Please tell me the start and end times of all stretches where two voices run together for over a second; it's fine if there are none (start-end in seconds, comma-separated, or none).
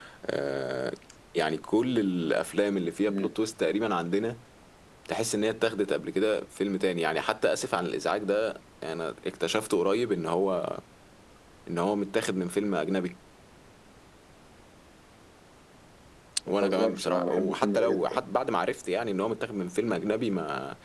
16.6-18.1